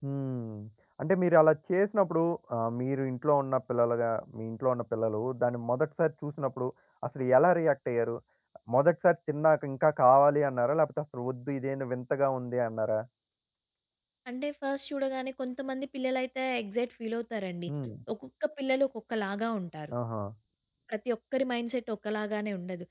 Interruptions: none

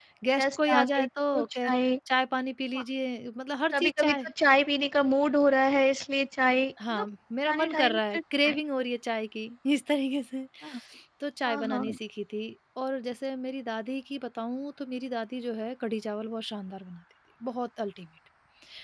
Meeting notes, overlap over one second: present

